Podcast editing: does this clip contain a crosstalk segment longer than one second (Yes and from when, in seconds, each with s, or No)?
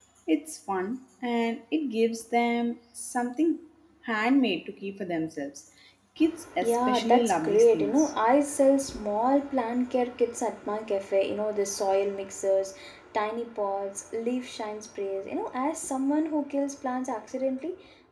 Yes, from 6.6 s